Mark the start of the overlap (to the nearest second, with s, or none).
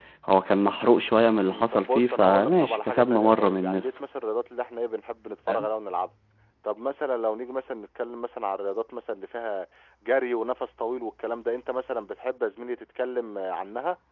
1 s